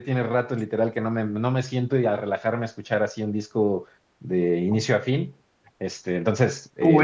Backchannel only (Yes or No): No